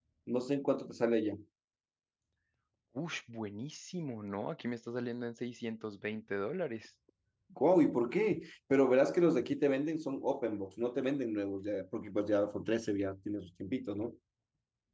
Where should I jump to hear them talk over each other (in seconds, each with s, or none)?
none